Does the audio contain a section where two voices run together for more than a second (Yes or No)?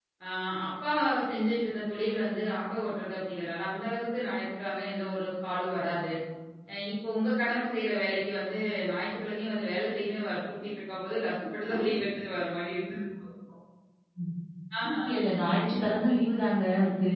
No